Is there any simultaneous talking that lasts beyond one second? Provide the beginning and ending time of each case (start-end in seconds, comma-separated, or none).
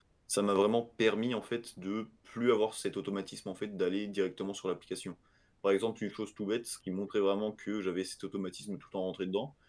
none